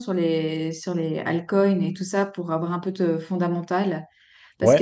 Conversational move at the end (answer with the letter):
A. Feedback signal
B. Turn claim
A